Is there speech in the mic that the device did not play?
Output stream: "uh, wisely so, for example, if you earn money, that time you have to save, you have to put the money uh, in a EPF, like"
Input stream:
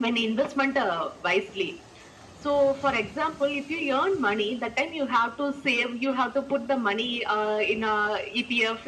No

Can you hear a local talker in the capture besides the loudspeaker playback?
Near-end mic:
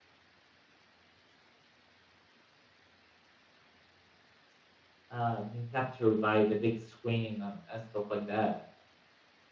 Yes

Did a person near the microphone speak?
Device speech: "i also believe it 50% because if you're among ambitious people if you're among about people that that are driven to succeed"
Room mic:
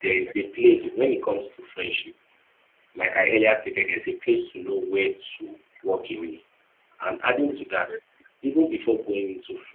Yes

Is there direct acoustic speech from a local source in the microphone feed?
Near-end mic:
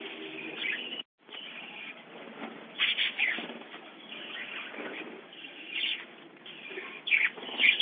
No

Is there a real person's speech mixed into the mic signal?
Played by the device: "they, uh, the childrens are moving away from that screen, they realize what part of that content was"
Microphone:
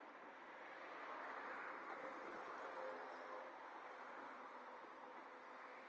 No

